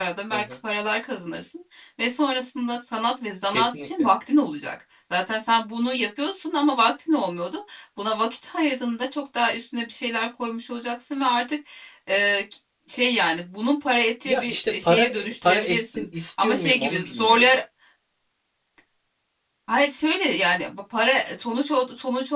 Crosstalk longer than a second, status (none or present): present